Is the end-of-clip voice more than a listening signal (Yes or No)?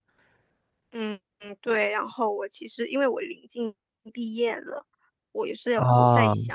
No